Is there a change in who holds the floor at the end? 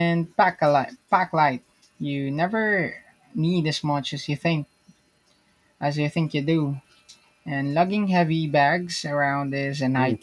Yes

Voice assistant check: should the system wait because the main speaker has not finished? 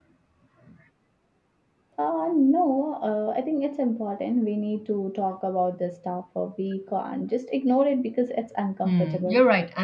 No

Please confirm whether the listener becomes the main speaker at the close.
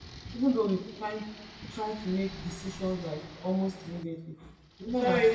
Yes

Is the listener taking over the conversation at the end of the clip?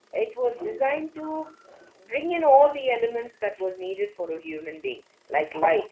Yes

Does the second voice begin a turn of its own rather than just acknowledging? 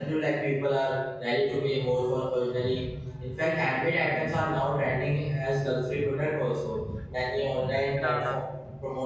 No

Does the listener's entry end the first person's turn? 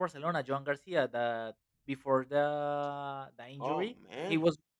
No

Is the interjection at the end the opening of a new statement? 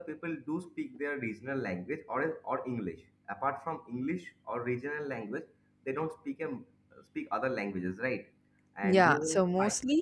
Yes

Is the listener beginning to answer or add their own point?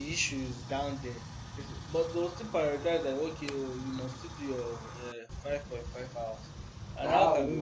Yes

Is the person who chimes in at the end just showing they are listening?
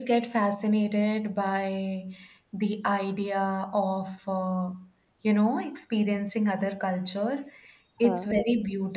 Yes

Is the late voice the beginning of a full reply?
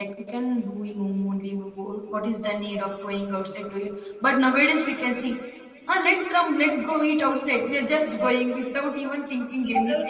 Yes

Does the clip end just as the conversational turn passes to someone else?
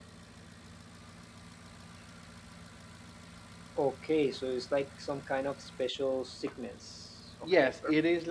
Yes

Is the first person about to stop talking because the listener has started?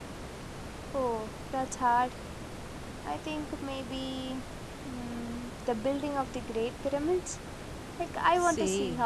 Yes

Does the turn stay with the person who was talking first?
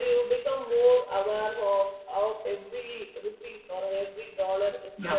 Yes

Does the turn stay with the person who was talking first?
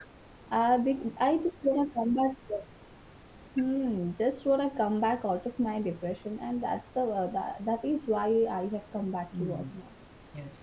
No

